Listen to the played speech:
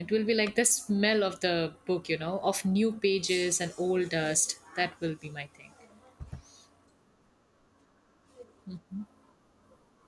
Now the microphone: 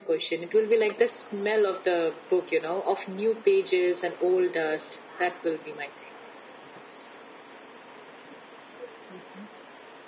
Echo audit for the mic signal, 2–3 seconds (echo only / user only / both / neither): echo only